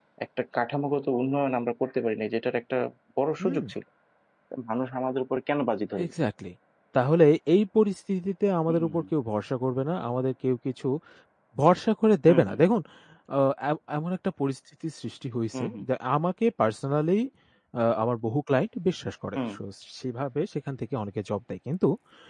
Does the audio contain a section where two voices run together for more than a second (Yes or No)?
No